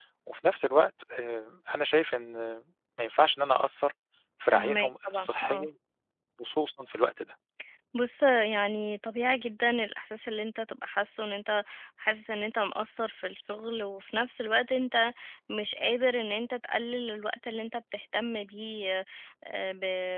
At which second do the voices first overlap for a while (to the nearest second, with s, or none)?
4 s